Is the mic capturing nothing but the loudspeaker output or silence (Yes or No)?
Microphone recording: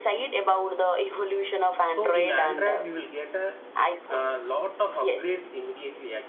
No